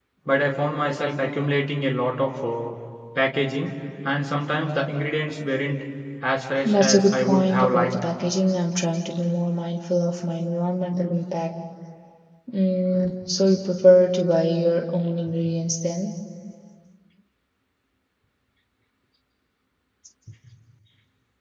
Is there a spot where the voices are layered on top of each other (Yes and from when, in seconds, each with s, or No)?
Yes, from 6.7 s